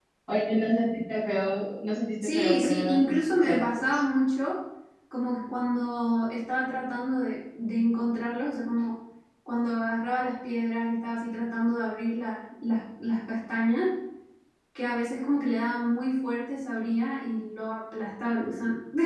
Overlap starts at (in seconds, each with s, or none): 2.2 s